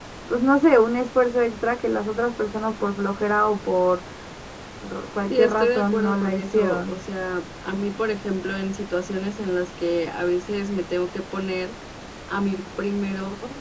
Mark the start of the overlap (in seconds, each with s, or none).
5.3 s